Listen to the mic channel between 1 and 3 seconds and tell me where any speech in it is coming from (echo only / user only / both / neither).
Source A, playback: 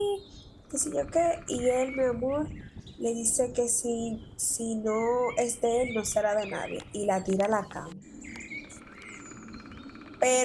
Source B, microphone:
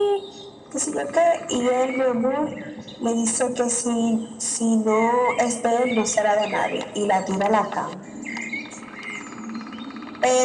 echo only